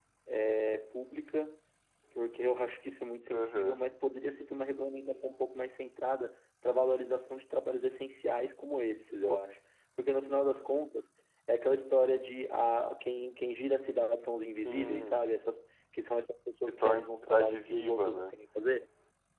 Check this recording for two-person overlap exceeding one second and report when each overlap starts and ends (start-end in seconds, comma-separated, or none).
16.7-18.3